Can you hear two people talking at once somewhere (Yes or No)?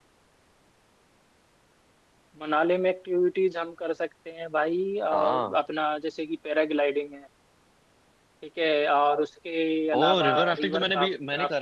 Yes